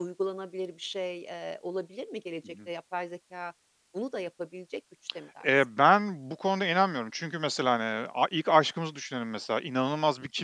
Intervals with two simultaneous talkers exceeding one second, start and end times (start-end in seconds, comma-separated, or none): none